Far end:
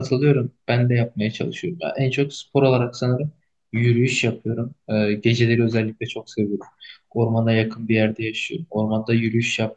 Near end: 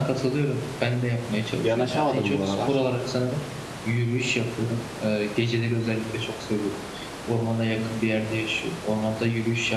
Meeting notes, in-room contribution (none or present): present